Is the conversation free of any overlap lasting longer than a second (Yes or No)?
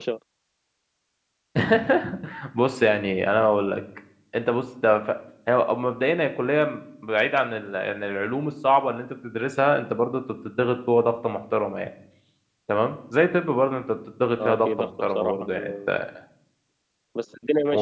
No